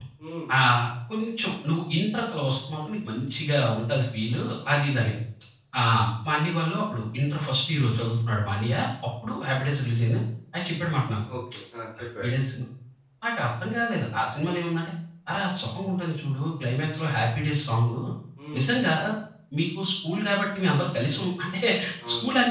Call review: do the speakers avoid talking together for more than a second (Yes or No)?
Yes